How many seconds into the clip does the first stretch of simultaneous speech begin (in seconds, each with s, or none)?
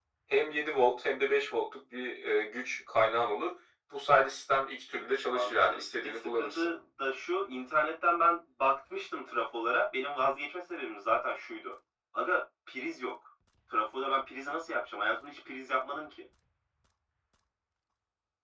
5.3 s